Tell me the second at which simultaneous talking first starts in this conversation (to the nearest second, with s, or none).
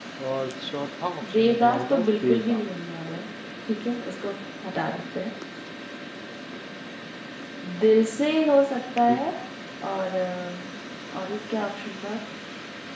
1 s